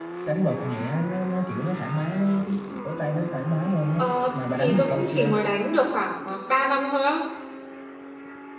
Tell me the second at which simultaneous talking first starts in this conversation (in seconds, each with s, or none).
4.0 s